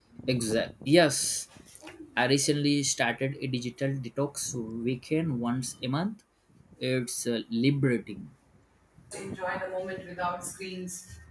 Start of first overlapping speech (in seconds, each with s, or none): none